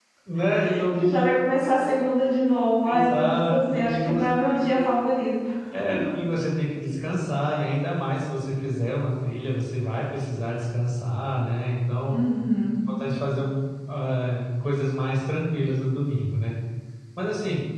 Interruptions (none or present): present